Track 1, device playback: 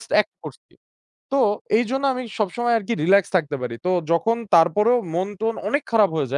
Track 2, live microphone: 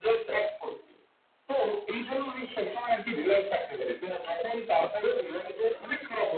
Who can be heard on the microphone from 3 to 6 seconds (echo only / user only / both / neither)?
echo only